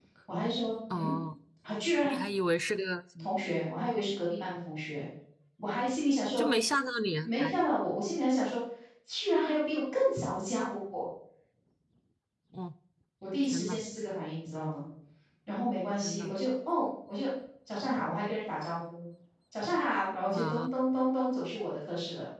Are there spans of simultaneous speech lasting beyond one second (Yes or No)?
No